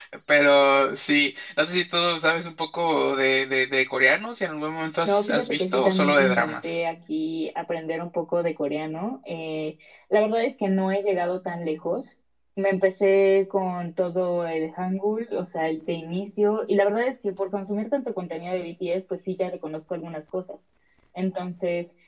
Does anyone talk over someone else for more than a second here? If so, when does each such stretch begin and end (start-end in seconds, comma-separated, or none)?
5.0-6.8